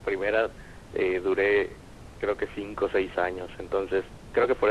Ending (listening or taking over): listening